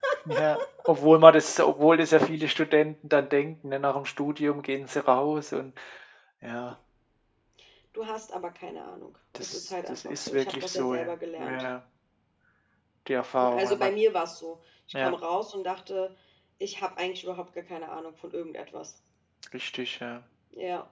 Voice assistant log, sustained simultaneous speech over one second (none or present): present